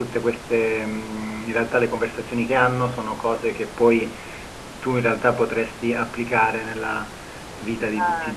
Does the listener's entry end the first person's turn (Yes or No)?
No